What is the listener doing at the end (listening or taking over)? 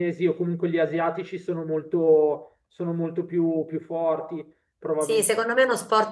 taking over